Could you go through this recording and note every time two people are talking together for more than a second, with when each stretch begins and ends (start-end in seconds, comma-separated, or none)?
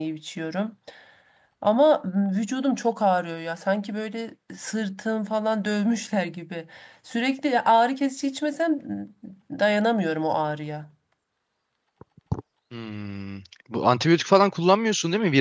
none